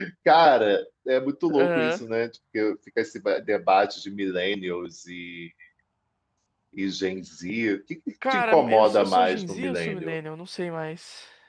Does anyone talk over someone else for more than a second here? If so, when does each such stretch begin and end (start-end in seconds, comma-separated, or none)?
8.3-10.2